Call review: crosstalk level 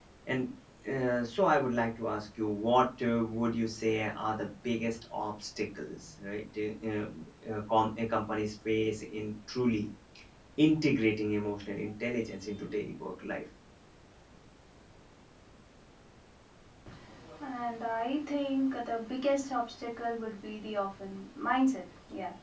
none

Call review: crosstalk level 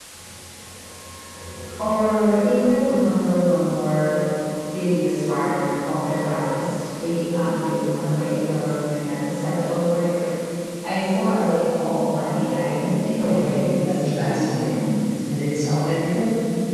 present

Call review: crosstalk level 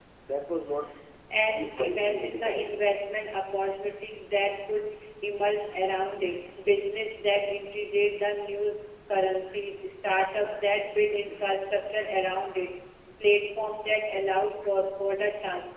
present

